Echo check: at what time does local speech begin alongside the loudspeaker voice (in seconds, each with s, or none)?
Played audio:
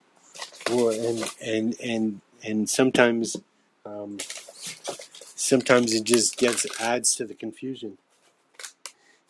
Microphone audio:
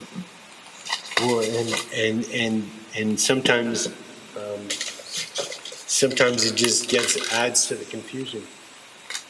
none